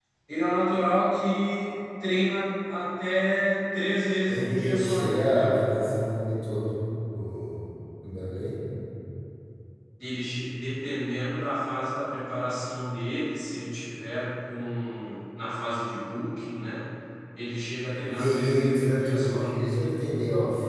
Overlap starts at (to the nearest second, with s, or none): 4 s